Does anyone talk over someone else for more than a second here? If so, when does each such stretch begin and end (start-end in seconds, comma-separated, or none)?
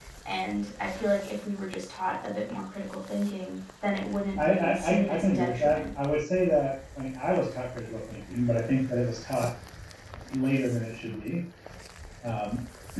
4.4-5.8